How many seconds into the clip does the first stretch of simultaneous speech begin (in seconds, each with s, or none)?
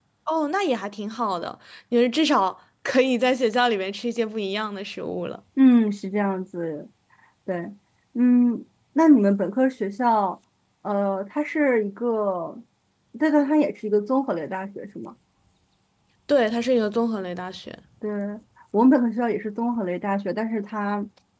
none